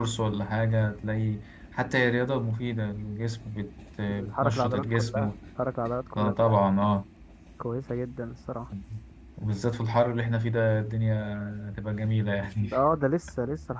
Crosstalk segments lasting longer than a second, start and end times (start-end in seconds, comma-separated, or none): 4.1-5.3